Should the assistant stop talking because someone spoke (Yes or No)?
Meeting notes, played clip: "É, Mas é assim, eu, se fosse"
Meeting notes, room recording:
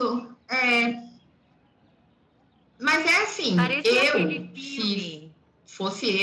Yes